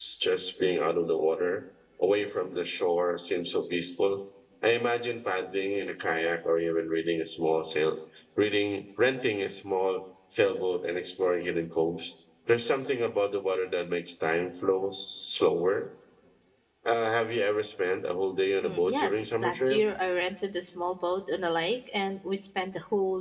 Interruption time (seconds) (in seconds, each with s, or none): 18.6 s